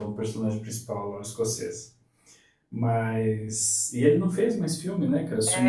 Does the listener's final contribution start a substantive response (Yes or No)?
Yes